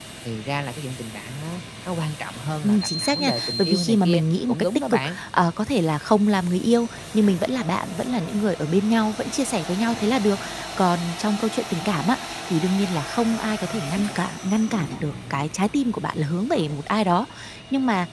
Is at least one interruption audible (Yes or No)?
Yes